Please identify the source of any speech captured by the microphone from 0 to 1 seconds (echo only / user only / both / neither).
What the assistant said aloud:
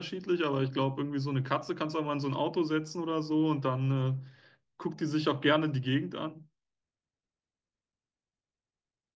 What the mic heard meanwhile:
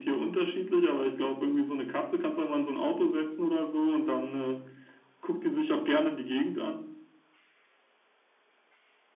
echo only